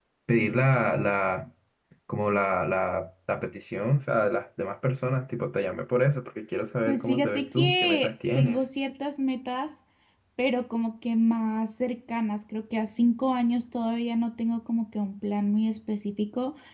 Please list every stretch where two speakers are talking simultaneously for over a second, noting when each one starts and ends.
6.9-8.6

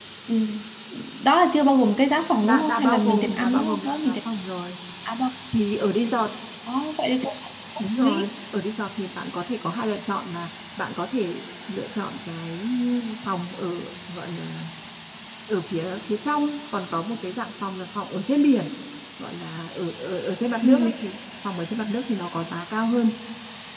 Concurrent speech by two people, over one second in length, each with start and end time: 2.4-4.2

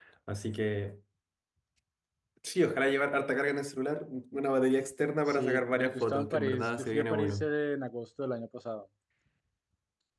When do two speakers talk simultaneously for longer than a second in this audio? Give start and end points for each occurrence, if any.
5.3-7.5

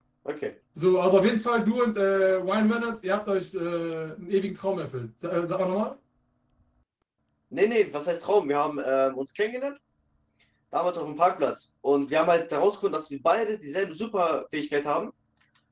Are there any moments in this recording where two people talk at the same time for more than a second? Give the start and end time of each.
none

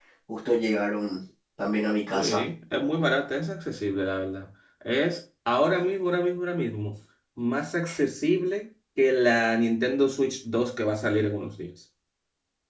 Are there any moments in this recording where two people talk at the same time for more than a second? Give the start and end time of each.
none

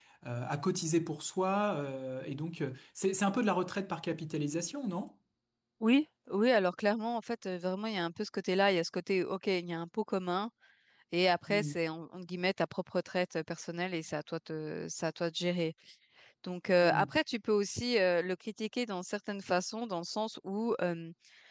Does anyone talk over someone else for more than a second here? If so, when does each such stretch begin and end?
none

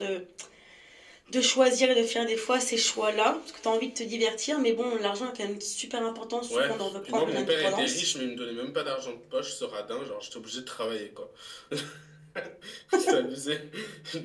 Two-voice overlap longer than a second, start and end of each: 6.5-8.0

